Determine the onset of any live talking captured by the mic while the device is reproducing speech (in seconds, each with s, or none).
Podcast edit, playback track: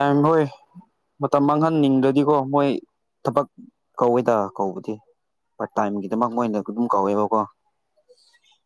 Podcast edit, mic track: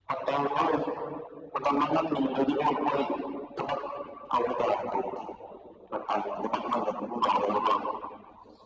none